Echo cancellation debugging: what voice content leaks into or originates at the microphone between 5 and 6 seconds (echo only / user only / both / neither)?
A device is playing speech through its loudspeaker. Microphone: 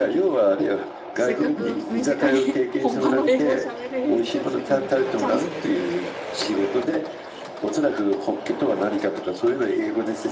both